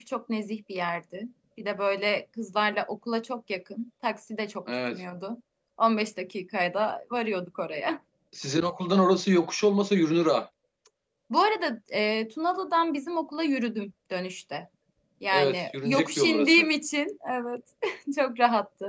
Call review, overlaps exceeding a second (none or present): present